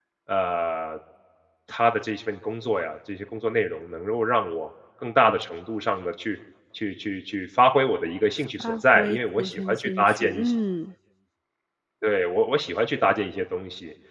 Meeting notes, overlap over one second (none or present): present